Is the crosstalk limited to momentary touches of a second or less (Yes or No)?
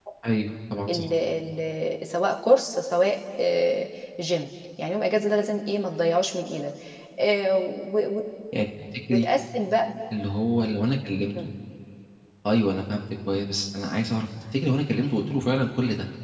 Yes